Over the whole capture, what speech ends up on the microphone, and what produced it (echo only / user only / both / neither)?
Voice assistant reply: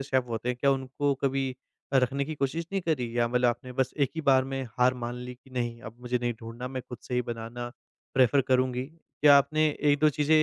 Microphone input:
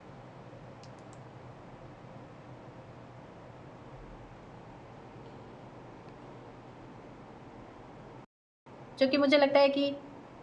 user only